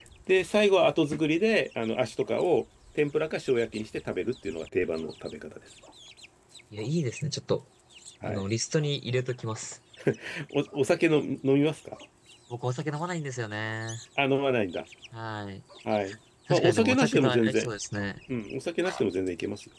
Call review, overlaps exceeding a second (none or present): present